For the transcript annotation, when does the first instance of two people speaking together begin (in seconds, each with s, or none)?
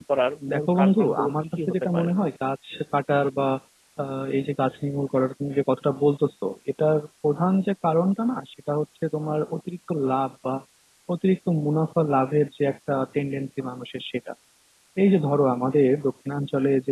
0.5 s